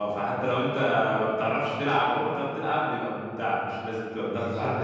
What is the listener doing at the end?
listening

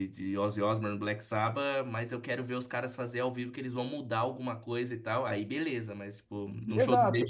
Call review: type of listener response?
listening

